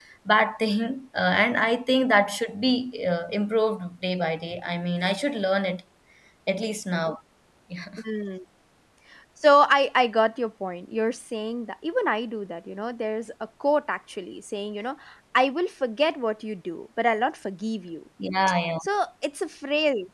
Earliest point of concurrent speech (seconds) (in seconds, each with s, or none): none